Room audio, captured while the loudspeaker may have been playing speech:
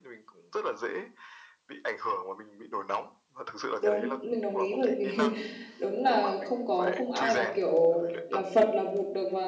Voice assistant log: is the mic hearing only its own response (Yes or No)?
No